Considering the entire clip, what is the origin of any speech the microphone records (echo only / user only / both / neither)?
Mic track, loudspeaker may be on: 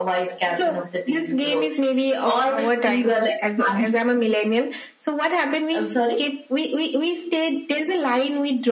echo only